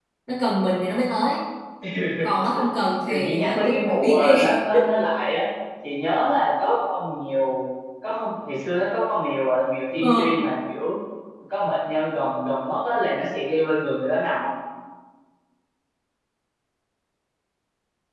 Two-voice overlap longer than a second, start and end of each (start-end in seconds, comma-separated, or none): 3.1-4.4